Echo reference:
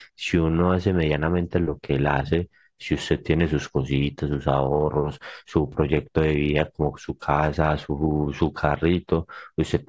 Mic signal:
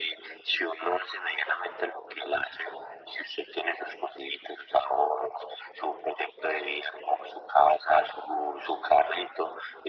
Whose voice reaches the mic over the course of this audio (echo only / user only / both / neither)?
echo only